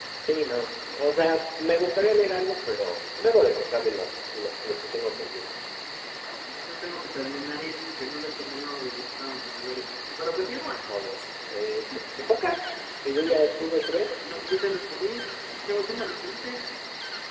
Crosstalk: none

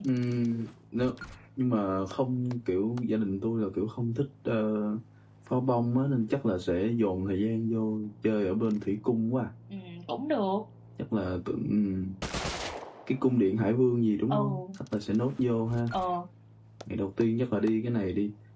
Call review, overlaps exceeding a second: none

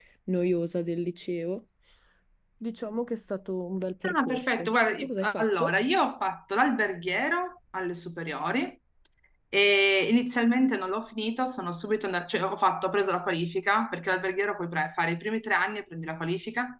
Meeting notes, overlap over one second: present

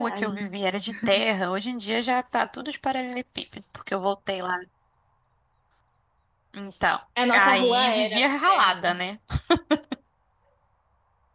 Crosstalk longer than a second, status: present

